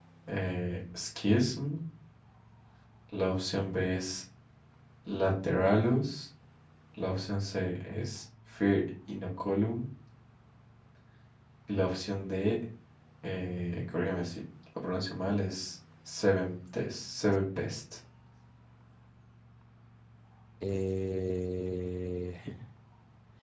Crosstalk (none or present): none